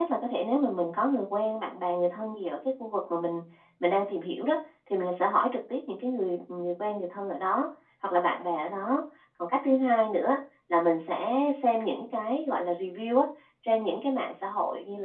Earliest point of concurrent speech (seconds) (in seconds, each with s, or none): none